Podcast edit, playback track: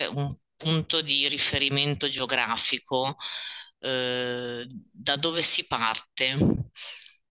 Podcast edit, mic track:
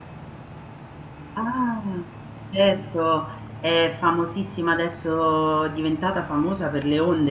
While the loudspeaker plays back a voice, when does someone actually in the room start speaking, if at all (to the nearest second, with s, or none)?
1 s